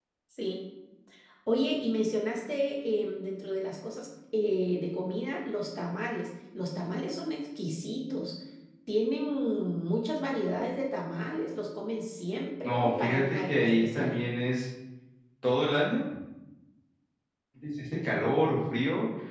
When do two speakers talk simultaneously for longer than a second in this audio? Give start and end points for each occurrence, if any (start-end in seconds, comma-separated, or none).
12.6-14.2